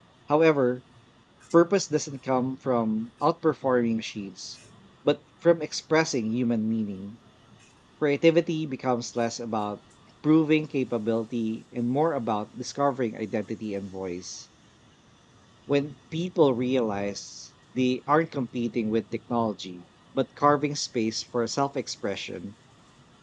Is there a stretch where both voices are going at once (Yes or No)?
No